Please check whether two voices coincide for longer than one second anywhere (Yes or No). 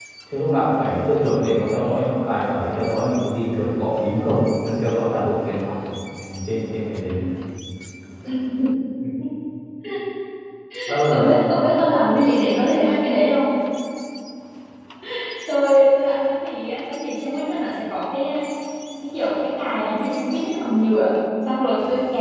No